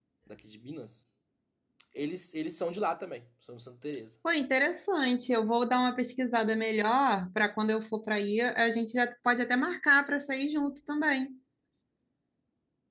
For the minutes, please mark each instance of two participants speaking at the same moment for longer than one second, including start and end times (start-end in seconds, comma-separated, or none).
none